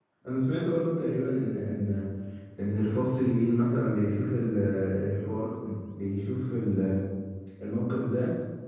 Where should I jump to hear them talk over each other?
none

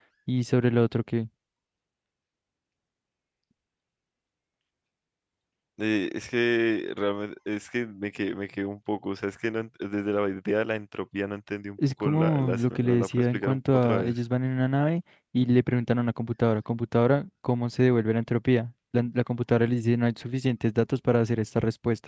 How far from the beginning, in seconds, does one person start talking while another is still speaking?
11.8 s

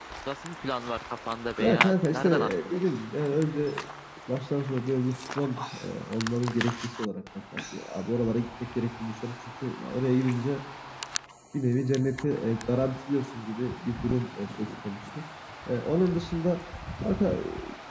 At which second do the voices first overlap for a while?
1.6 s

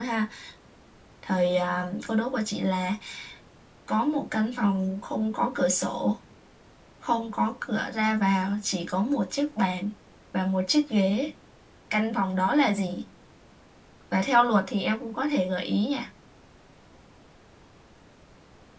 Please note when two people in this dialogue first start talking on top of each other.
none

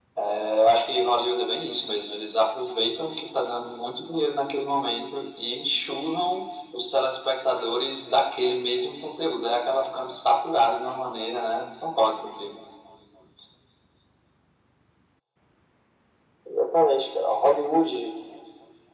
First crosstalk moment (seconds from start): none

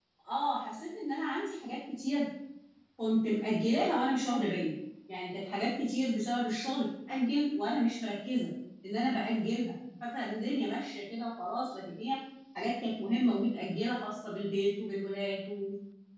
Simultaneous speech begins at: none

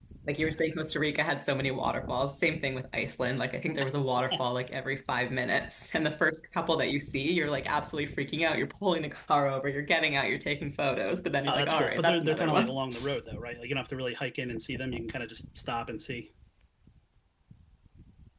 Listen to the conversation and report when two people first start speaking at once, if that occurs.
11.5 s

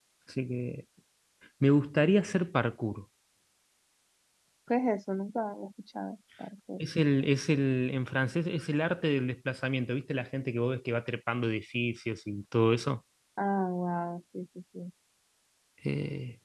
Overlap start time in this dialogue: none

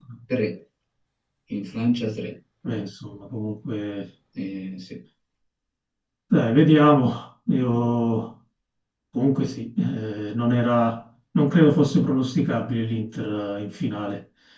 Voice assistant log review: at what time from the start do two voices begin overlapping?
none

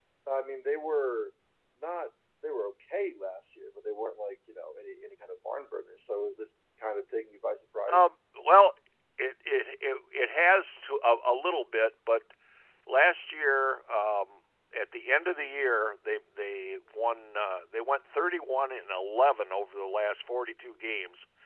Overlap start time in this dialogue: none

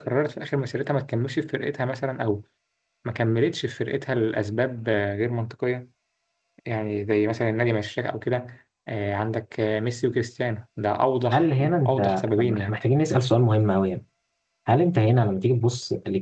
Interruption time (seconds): 11.3 s

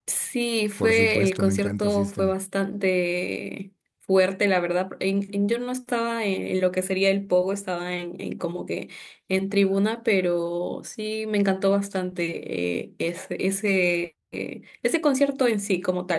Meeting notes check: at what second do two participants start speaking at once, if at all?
0.8 s

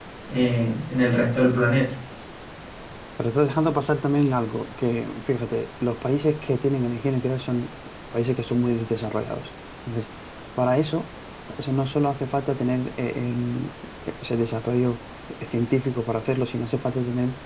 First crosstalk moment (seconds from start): none

